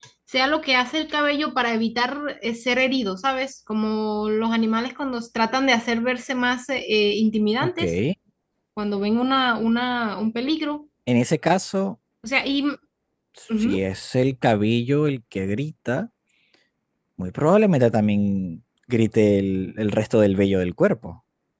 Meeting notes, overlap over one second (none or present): none